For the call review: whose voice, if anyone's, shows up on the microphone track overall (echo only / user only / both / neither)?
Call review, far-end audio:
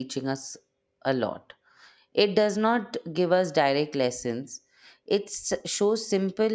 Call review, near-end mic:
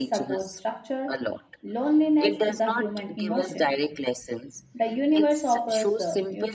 both